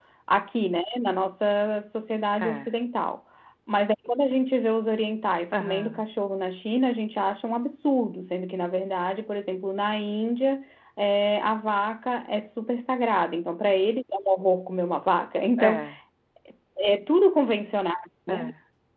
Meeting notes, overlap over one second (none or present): none